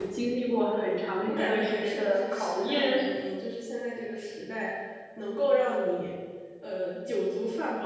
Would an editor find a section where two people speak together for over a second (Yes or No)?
Yes